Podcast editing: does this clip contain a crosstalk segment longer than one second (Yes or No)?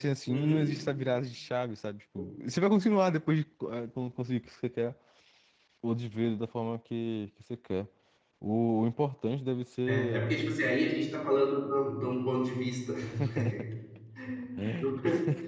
No